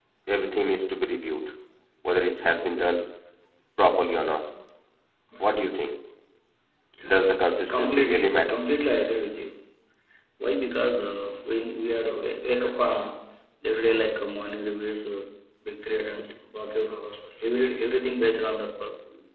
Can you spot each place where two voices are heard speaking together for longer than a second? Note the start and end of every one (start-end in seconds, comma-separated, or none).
7.0-8.6